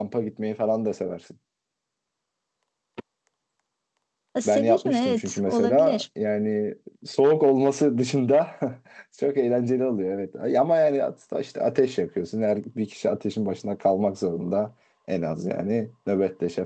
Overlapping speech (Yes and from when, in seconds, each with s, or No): Yes, from 4.5 s